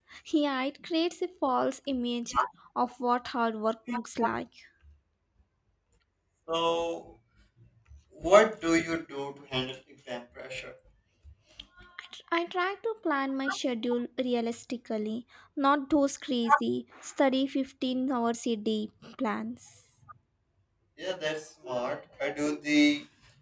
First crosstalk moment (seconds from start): none

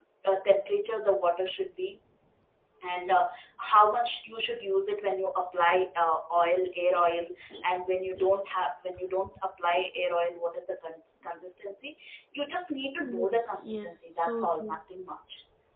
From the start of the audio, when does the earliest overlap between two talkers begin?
13.1 s

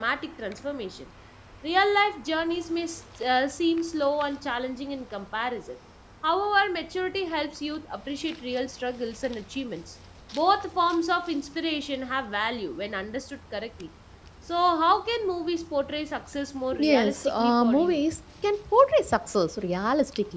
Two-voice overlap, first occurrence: 16.7 s

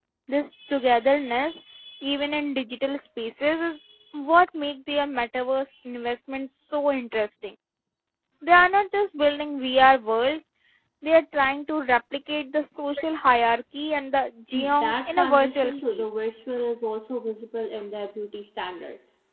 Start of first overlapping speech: 14.8 s

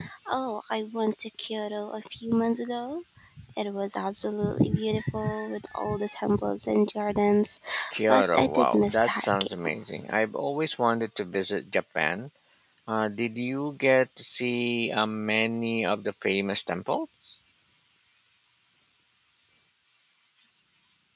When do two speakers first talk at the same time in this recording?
8.1 s

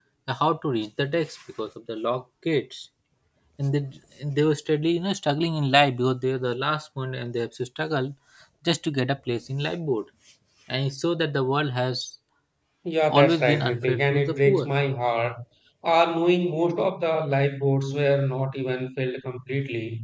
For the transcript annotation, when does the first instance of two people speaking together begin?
13.1 s

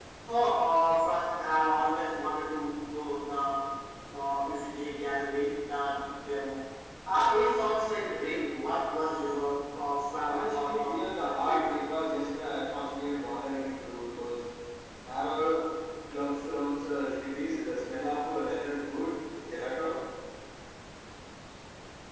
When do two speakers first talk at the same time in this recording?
10.2 s

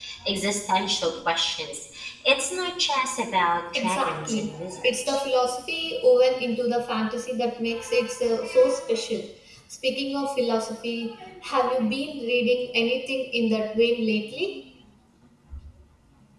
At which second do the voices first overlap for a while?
3.8 s

